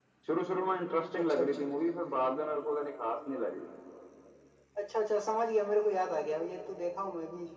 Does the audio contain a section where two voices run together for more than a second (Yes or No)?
No